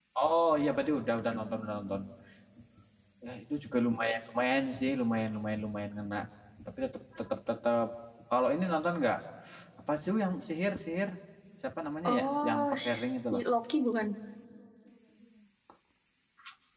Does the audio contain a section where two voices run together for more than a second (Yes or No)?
Yes